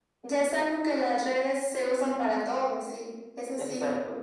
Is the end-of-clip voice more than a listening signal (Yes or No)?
Yes